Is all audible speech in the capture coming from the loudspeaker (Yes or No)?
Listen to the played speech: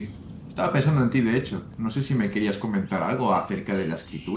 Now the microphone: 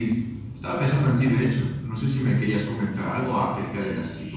Yes